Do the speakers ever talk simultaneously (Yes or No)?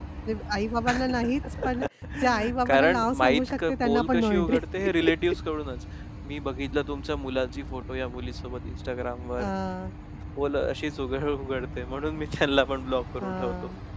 Yes